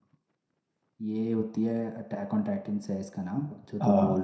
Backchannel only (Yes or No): Yes